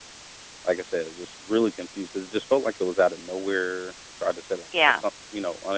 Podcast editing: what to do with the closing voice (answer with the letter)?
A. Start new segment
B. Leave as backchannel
B